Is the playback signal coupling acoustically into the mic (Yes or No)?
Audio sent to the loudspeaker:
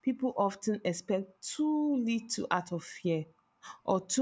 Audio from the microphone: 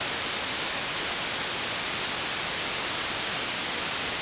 No